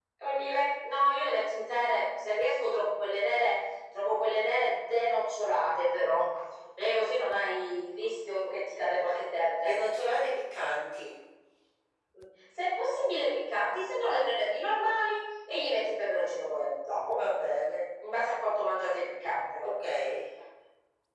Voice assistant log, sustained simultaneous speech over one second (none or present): none